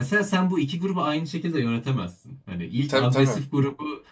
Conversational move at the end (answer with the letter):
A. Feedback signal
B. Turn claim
A